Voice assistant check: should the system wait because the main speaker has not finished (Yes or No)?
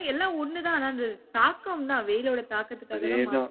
No